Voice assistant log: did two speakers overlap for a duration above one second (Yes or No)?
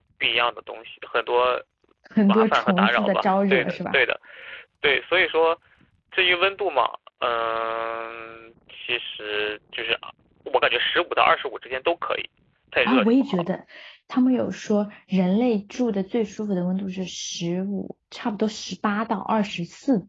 Yes